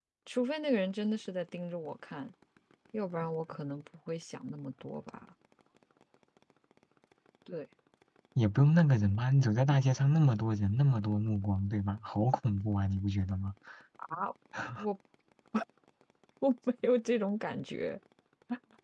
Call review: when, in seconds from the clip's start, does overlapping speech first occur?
none

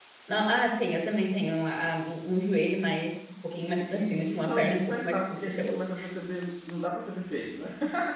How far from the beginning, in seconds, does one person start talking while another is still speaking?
3.8 s

